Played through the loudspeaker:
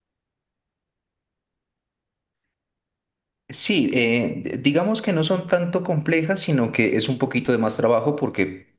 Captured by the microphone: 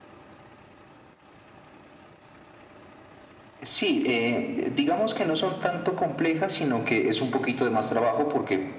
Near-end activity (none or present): none